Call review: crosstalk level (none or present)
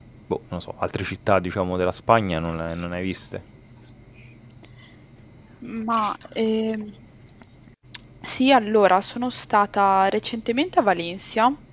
none